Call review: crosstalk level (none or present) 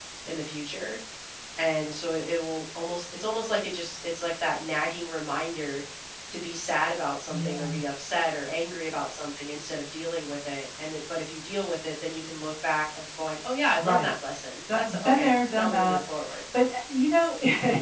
present